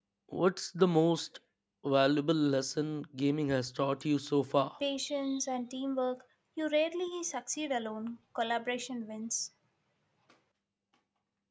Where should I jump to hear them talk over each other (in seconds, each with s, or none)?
none